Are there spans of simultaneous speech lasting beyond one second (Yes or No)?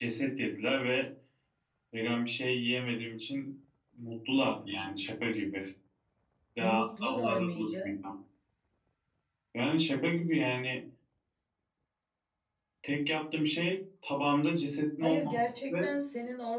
Yes